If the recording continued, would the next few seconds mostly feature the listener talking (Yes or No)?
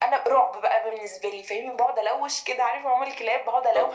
No